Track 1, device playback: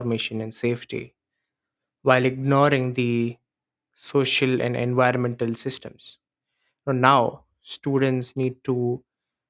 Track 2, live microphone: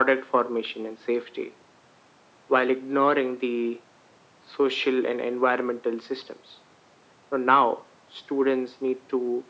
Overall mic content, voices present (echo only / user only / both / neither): echo only